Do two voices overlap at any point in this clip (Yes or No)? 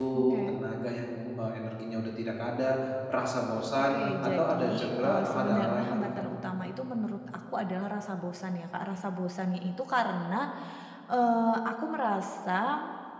Yes